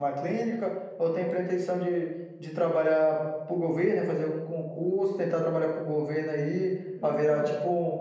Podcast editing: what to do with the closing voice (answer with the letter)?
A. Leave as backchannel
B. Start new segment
A